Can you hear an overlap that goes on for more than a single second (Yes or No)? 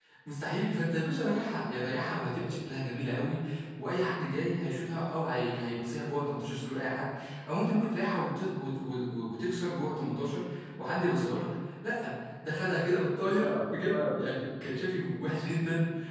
Yes